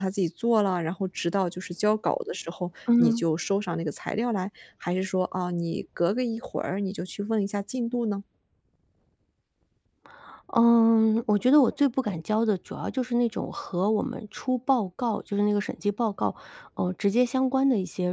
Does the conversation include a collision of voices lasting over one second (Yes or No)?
No